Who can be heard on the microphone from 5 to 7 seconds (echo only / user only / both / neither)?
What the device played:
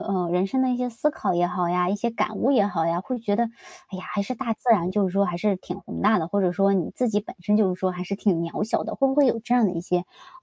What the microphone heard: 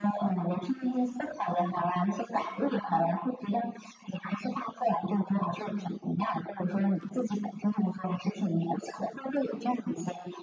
echo only